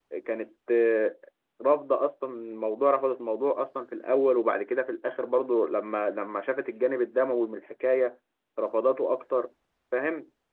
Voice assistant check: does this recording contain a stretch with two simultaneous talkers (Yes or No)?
No